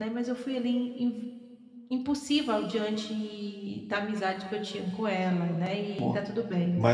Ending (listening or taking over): taking over